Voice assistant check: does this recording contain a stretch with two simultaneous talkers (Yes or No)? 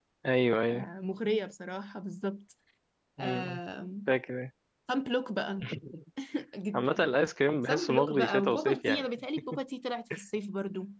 Yes